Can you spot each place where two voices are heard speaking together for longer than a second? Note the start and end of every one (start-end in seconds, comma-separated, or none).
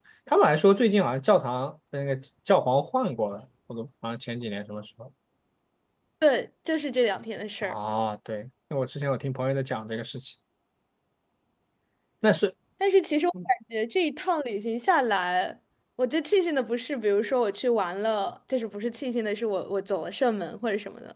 none